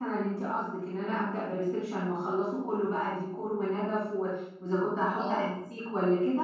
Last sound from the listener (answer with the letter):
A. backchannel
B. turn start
A